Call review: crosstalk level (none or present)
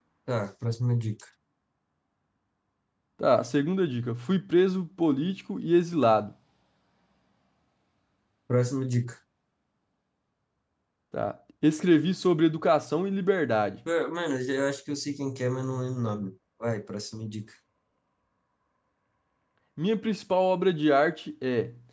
none